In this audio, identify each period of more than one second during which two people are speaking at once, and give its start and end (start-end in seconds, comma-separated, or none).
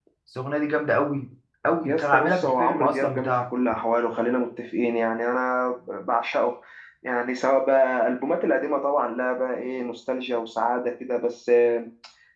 1.9-3.4